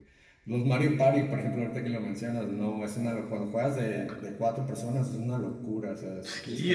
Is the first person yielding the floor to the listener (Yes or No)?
Yes